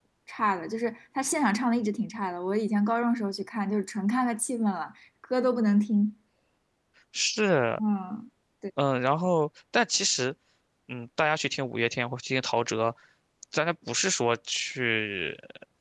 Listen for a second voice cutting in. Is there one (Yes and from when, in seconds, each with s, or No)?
No